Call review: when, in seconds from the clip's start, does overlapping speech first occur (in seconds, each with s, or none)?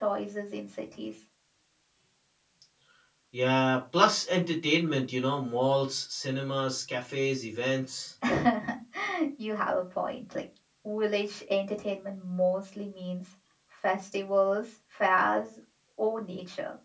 none